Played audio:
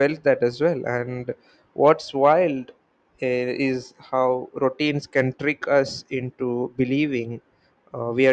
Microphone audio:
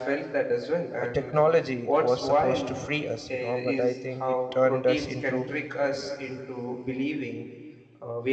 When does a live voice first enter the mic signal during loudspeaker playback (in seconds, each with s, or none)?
1.0 s